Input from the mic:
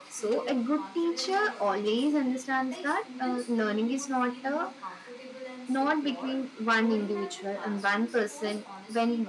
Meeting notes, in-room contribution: present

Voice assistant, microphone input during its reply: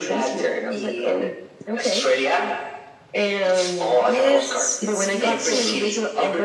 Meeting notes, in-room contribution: present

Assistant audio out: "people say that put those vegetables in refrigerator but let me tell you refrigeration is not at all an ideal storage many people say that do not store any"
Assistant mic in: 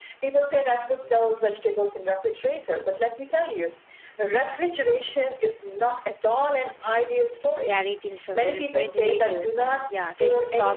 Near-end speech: present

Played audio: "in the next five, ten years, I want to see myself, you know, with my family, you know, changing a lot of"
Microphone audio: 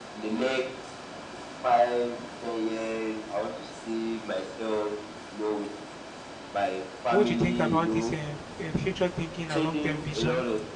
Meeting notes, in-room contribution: present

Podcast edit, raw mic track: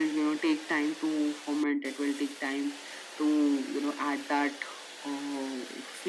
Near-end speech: none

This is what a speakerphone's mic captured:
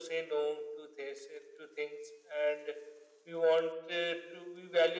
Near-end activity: none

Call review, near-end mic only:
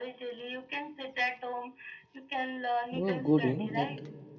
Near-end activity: present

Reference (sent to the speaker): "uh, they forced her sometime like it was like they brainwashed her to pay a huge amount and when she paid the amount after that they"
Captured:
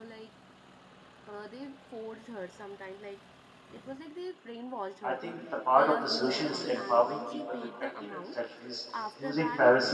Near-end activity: present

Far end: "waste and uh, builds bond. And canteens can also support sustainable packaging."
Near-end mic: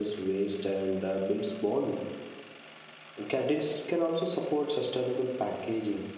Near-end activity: none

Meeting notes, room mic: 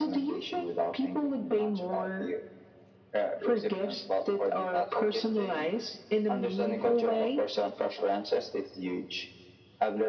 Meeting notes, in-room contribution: none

